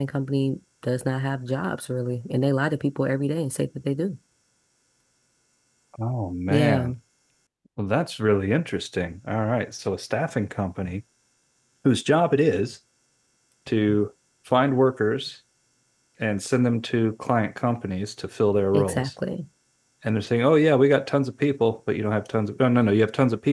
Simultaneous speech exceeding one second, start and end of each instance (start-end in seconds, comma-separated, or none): none